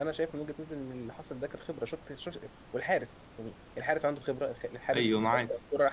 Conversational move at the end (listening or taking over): taking over